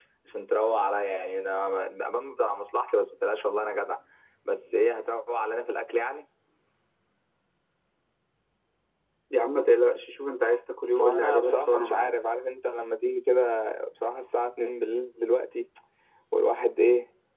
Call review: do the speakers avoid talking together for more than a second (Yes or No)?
No